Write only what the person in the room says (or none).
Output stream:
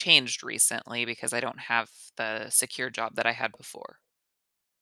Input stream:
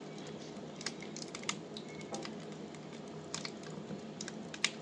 none